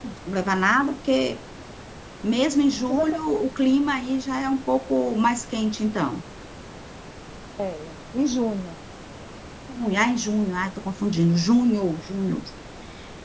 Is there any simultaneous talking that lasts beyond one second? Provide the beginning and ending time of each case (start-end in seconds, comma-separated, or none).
none